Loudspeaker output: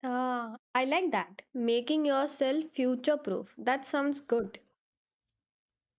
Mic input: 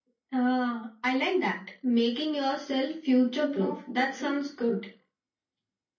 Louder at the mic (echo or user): echo